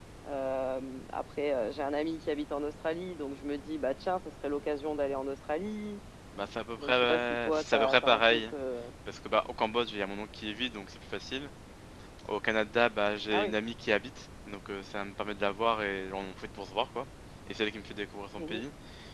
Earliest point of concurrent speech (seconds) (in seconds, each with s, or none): 6.8 s